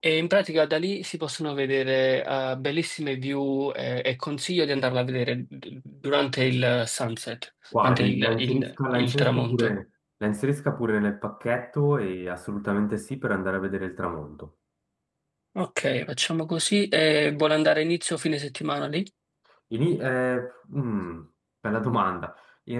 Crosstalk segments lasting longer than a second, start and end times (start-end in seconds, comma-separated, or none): 7.8-9.8